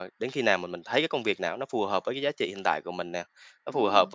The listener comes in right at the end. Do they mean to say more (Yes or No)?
No